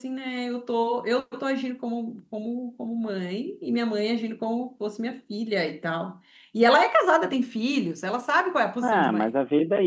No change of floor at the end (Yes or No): No